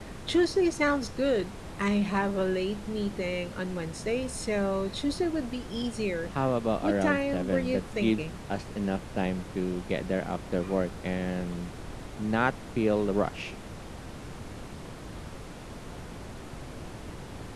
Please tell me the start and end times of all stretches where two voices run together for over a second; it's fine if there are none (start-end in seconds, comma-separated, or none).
6.8-8.2